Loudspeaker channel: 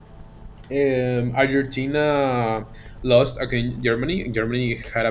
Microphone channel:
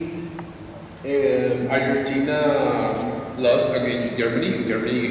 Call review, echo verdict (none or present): present